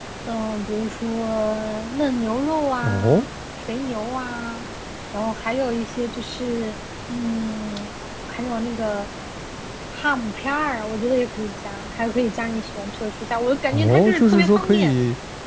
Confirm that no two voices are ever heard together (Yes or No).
No